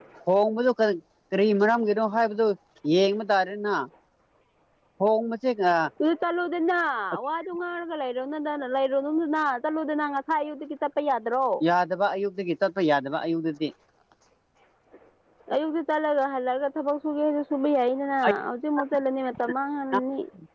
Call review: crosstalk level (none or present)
none